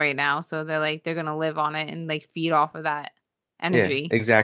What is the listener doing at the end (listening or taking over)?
taking over